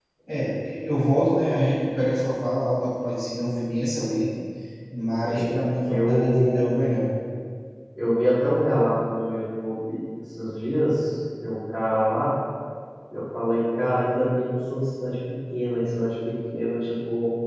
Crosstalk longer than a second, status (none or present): present